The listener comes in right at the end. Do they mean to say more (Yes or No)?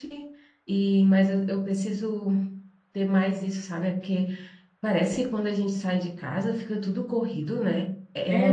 Yes